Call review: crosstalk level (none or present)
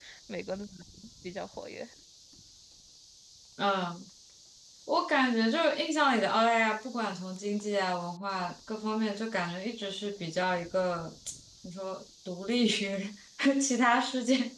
none